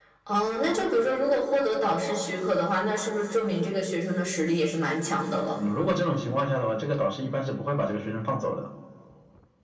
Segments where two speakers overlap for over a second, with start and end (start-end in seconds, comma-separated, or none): none